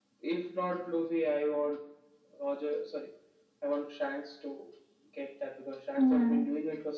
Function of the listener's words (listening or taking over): listening